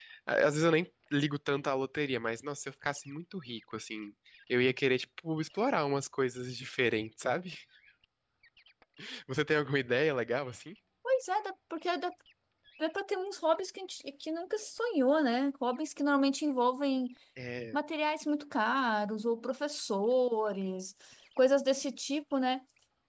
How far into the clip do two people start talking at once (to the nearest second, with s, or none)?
none